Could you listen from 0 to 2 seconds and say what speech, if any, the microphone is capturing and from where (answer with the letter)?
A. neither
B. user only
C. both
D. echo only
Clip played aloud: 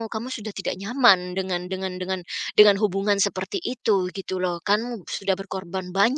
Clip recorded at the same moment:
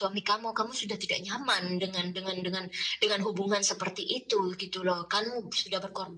D